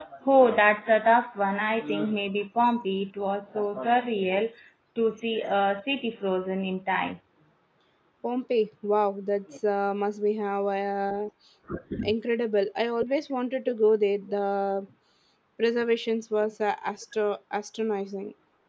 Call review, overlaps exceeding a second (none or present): none